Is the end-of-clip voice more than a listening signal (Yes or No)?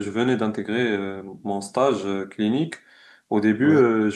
No